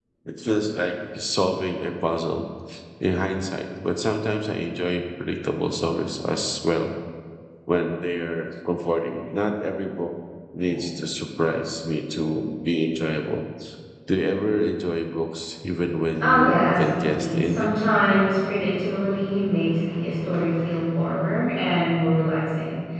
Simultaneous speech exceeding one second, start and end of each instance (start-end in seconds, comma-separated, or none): 16.2-17.8